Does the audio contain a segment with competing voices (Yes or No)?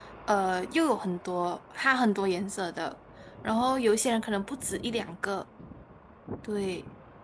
No